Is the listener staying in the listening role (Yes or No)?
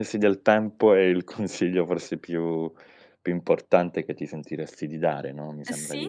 No